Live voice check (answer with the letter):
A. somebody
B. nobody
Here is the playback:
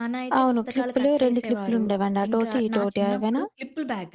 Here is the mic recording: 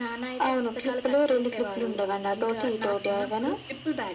B